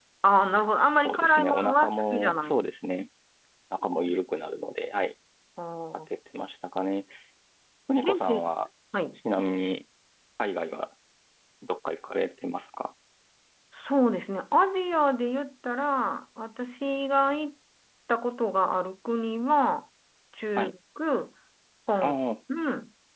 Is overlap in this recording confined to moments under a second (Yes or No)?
No